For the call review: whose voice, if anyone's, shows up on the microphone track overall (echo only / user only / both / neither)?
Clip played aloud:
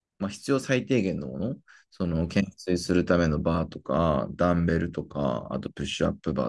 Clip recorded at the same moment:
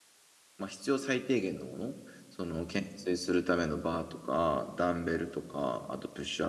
echo only